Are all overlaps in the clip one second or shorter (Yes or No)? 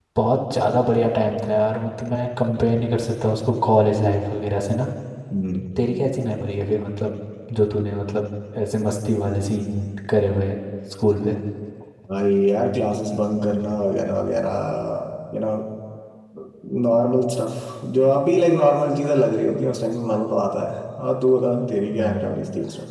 Yes